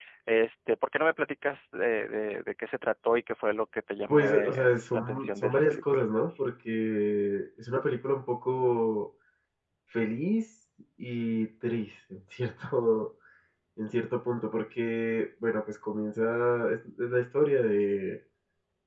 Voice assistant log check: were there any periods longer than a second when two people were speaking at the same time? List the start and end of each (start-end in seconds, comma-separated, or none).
4.1-6.0